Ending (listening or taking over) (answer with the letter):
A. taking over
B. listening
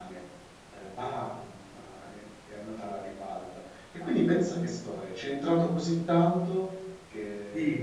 A